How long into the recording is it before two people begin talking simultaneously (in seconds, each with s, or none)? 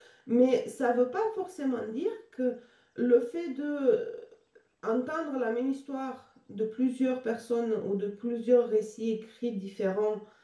none